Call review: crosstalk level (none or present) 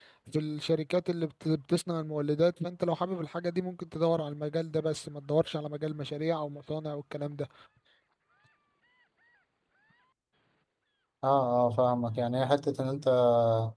none